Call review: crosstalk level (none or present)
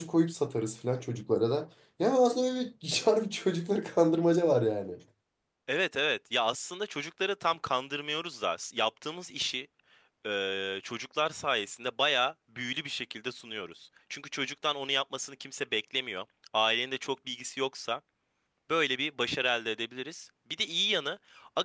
none